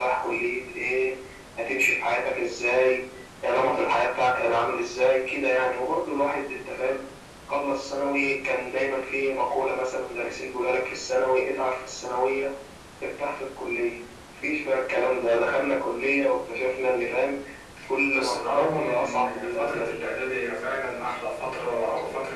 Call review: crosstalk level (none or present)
present